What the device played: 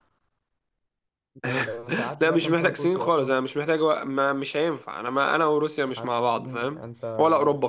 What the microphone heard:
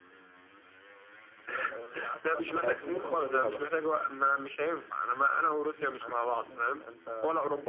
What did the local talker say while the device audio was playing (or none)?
ما لقيتش نفسك فيها بقى